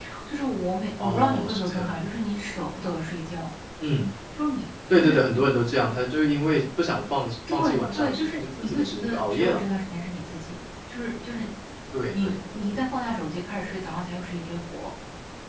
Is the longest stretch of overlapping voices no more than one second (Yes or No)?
No